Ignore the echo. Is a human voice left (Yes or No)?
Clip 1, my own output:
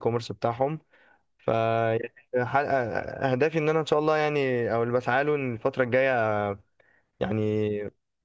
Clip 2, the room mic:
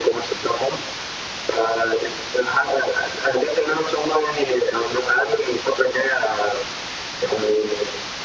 No